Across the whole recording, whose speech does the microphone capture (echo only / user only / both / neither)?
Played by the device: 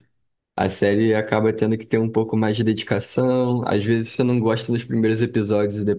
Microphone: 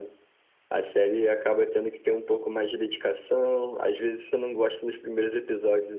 echo only